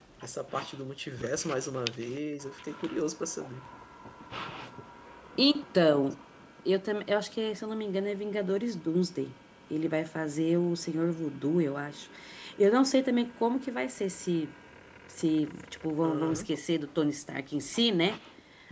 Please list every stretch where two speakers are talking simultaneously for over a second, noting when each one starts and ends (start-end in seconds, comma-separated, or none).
none